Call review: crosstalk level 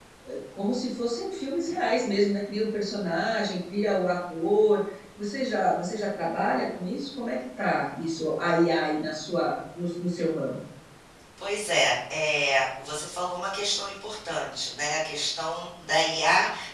none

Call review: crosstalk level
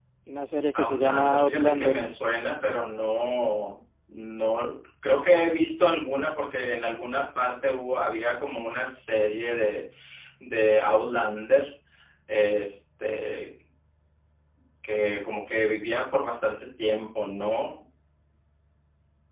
present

